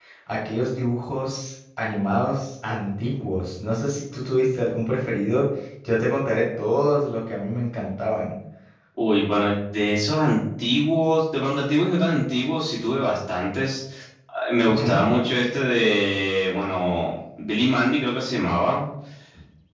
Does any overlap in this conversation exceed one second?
No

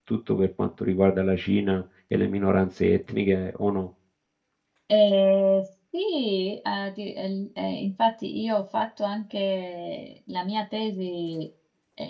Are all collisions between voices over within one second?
Yes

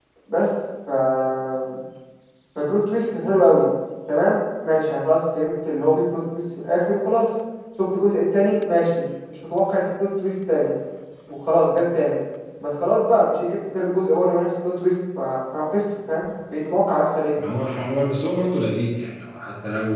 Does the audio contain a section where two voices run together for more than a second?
No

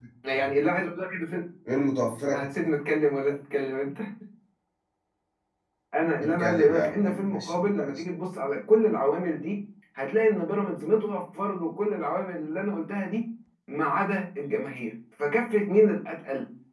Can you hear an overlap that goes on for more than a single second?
Yes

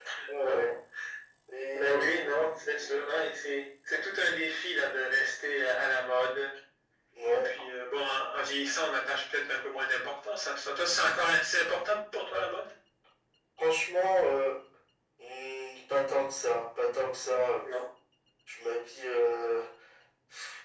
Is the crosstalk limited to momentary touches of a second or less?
No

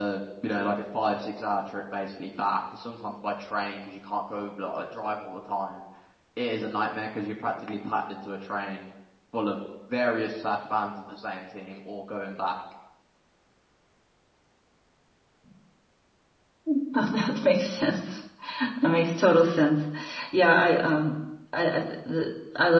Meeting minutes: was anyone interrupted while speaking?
No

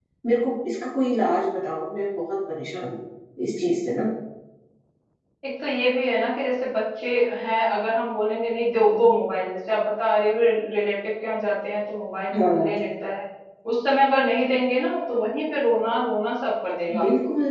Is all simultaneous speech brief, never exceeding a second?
Yes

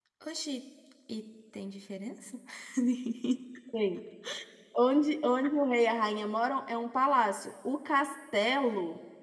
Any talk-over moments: No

